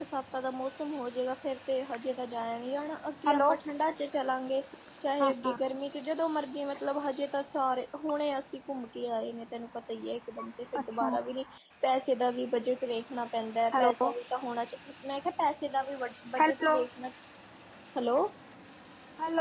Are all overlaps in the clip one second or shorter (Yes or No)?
Yes